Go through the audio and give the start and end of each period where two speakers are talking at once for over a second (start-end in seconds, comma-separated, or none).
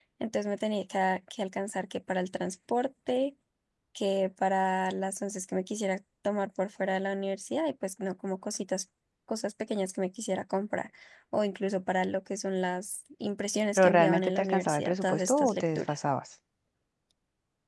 13.8-16.0